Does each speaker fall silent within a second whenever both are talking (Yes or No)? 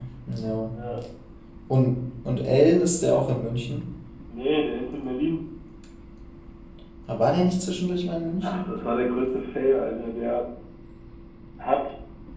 Yes